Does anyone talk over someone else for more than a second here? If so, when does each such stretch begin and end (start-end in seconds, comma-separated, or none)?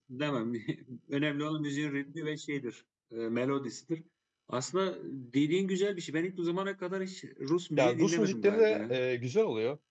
7.8-9.0